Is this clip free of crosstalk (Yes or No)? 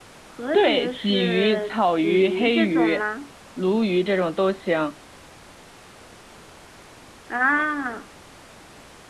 No